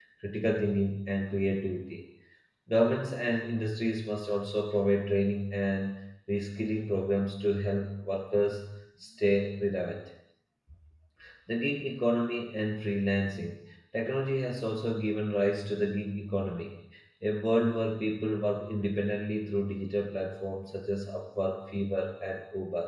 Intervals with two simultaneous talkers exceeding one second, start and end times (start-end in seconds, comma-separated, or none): none